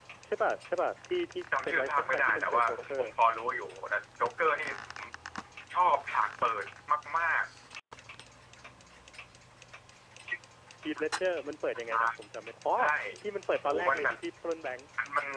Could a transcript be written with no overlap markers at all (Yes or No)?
No